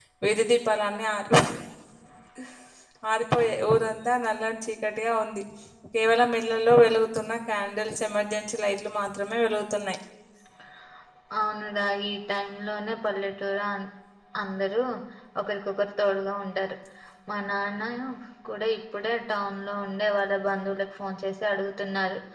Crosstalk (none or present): none